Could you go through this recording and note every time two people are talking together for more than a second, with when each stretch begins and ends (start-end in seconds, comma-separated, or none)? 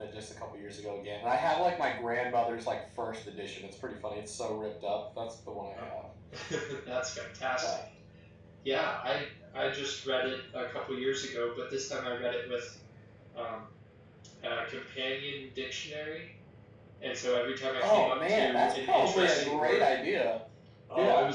17.8-19.9